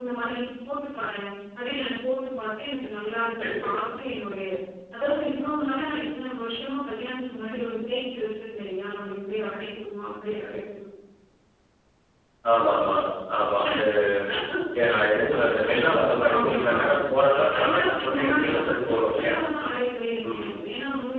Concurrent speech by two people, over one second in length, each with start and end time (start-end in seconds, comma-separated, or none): 17.6-19.4